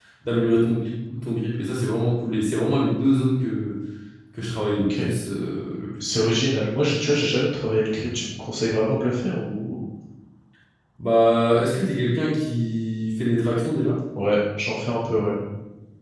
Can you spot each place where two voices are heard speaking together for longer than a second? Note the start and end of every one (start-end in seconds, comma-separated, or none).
none